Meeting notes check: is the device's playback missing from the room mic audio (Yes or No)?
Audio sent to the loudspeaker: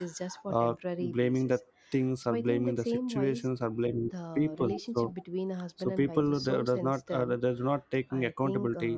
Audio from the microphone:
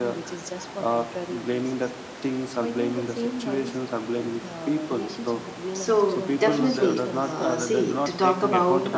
No